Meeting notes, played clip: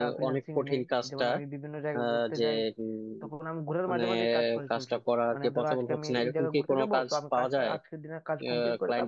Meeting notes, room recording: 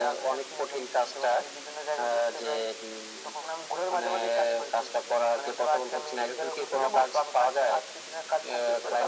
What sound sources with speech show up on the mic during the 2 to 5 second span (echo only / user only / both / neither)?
echo only